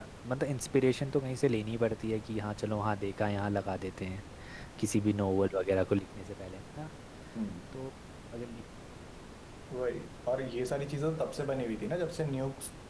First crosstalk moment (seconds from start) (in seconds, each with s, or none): none